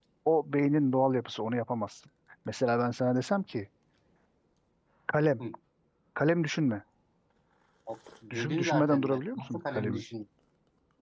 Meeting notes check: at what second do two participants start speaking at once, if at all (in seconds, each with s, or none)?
8.3 s